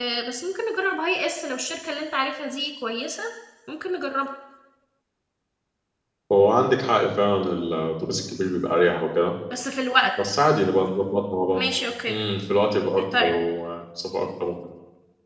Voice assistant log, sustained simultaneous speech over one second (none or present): none